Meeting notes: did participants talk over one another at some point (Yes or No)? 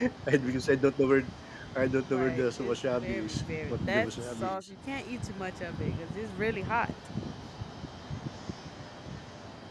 Yes